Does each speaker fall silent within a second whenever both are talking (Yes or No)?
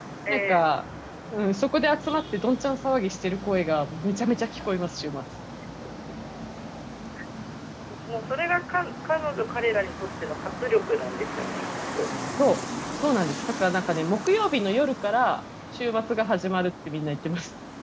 Yes